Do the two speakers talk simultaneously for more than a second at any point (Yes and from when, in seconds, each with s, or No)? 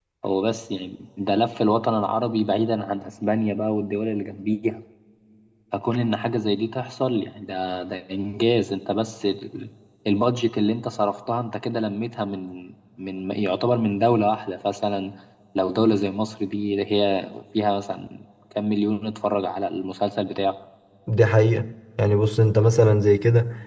No